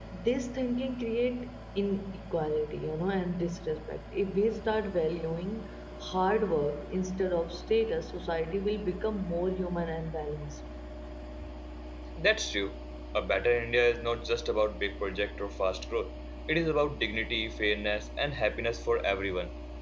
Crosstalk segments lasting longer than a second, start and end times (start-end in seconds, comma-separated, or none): none